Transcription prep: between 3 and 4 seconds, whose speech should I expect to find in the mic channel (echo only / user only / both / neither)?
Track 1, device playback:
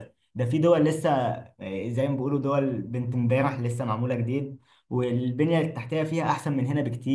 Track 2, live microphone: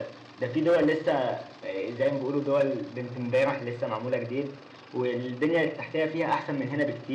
echo only